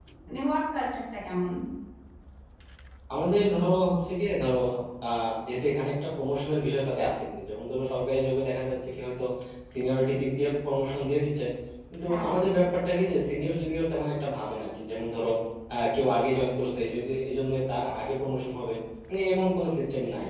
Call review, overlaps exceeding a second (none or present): none